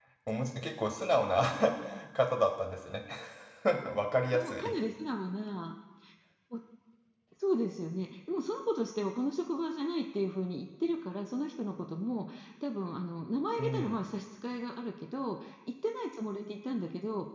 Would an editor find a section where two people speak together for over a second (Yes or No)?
No